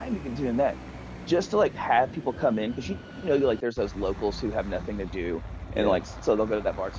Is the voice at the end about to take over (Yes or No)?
No